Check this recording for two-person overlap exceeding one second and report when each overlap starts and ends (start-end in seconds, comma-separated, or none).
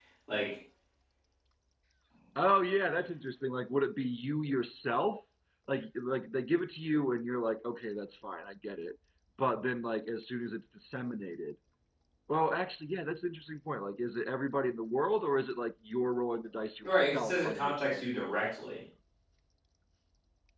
16.8-18.1